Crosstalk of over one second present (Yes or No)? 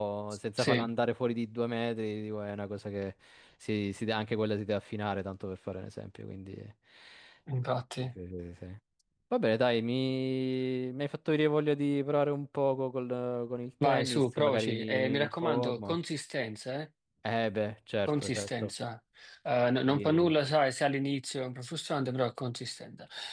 Yes